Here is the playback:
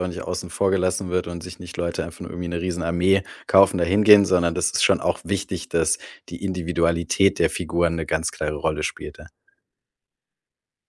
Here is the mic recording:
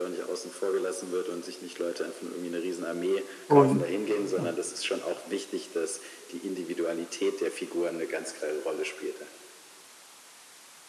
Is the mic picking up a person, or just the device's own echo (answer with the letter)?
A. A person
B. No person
A